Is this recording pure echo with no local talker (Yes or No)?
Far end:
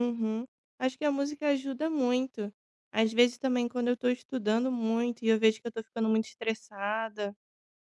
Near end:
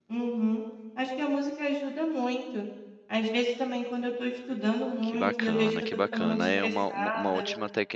No